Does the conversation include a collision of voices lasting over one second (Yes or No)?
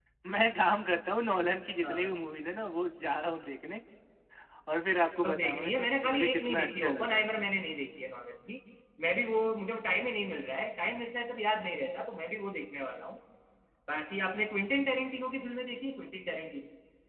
Yes